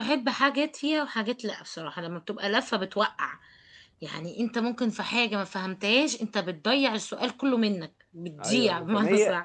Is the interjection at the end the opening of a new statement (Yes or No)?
Yes